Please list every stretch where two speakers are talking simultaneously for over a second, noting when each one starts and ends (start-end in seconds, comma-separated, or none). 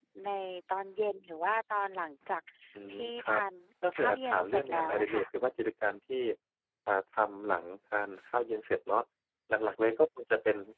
4.0-5.2